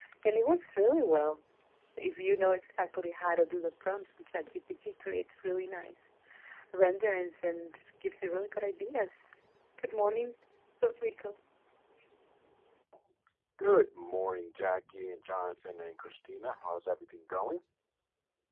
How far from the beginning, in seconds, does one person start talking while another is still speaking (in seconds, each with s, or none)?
none